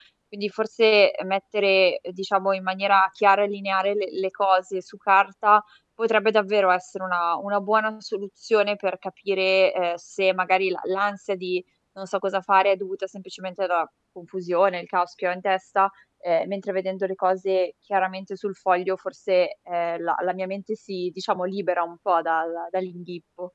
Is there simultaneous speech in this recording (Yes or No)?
No